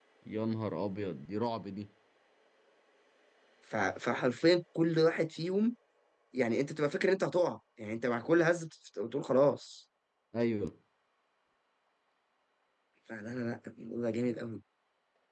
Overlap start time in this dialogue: none

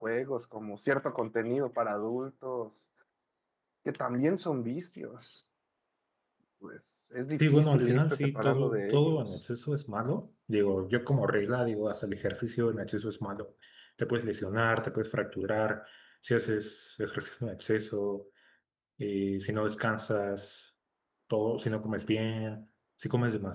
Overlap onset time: 7.4 s

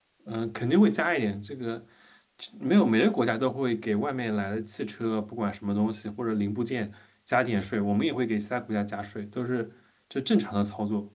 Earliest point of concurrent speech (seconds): none

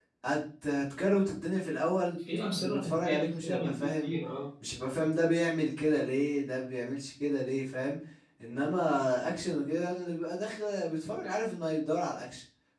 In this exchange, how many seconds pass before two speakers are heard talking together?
2.6 s

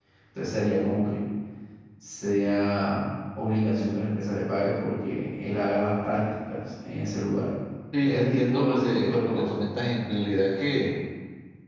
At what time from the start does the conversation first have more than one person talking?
8.0 s

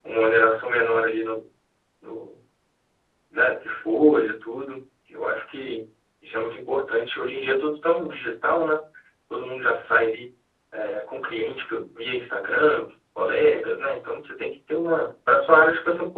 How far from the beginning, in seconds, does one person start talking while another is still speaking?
none

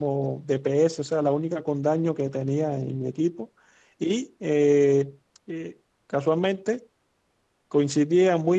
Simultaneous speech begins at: none

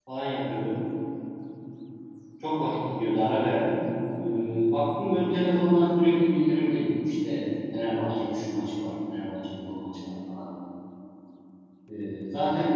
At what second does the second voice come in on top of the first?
none

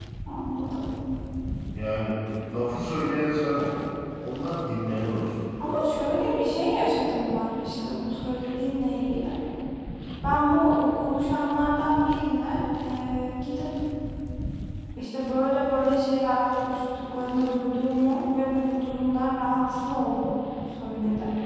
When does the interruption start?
none

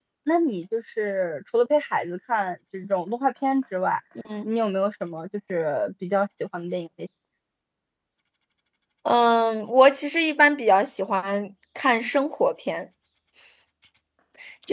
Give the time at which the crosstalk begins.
none

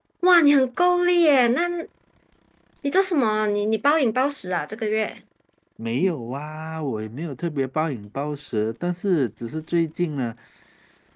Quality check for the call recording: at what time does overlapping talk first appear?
none

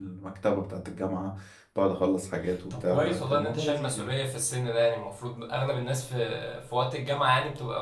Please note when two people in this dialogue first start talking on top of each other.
2.5 s

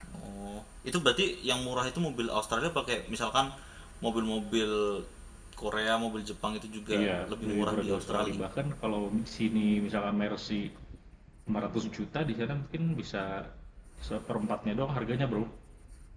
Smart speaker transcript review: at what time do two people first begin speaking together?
6.9 s

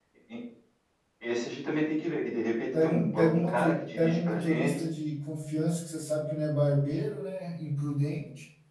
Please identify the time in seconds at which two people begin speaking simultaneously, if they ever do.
2.7 s

